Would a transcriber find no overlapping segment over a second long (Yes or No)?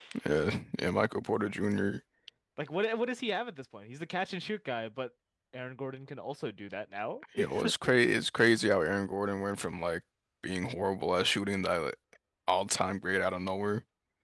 Yes